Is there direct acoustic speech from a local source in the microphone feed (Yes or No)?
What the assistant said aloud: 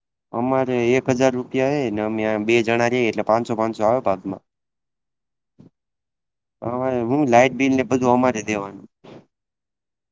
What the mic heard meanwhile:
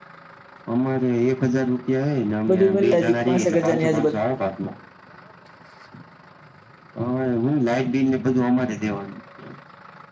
Yes